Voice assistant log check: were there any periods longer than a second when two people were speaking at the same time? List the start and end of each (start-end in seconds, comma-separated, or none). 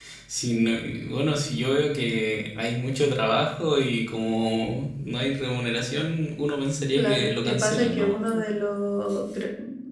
7.0-8.4